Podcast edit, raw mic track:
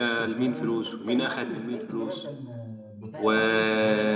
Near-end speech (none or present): present